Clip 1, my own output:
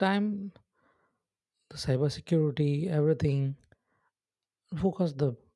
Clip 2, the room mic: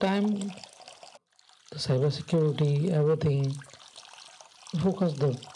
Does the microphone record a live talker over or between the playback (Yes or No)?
No